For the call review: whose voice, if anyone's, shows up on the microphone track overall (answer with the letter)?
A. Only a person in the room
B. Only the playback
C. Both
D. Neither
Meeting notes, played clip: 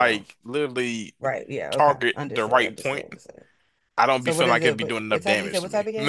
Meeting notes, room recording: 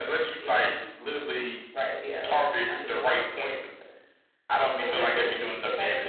B